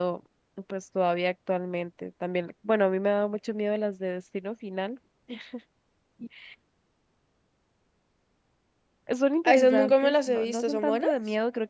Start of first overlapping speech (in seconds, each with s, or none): 9.4 s